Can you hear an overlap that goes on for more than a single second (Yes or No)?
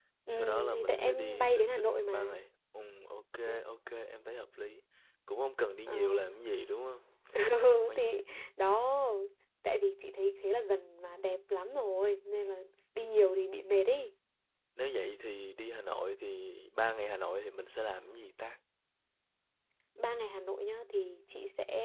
Yes